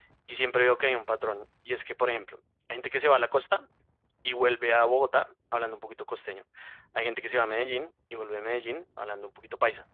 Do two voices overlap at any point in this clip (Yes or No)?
No